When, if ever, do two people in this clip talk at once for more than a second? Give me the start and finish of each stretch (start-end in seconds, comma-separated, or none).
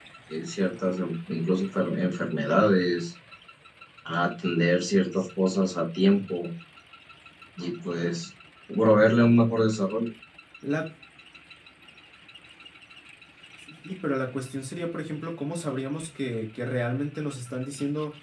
none